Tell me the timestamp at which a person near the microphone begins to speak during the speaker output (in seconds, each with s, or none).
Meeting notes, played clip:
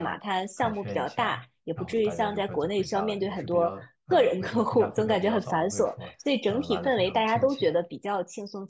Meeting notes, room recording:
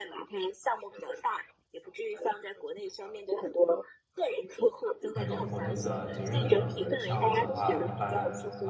5.1 s